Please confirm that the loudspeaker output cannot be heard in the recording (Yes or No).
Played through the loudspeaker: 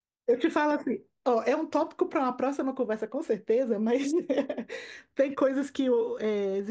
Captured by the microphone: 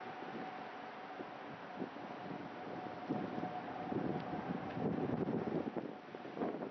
Yes